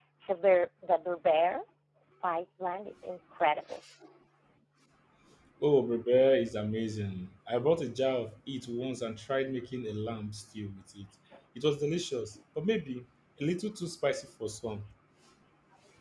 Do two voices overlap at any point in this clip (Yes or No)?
No